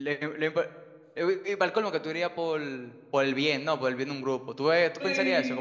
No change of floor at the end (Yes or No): No